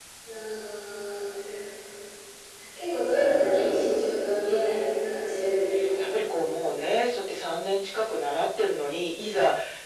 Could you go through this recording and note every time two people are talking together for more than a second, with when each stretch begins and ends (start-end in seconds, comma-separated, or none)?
none